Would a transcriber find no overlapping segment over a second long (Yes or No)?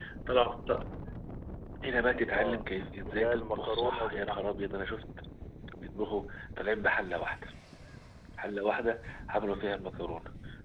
No